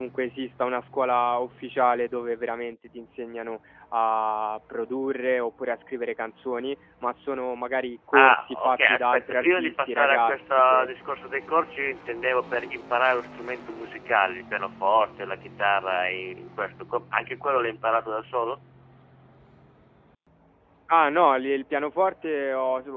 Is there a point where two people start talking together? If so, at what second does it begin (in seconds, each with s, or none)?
8.1 s